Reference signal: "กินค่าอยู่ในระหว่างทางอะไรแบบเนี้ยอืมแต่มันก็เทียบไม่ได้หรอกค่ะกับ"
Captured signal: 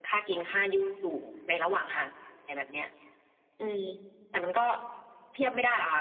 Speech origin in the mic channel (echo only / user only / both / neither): echo only